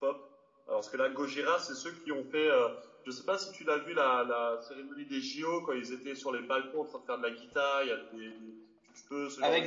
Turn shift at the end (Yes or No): Yes